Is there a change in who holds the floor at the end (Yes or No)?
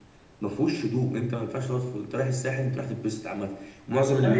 Yes